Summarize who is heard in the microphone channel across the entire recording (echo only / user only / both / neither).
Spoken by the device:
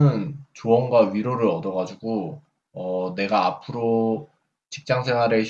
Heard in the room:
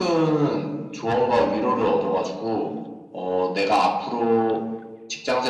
echo only